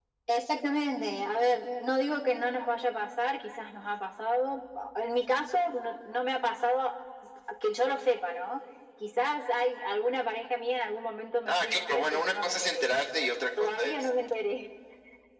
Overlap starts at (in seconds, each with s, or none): 11.4 s